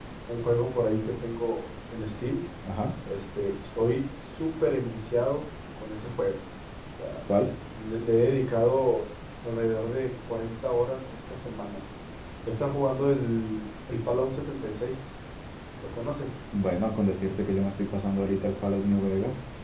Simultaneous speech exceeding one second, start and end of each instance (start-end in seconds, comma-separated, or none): none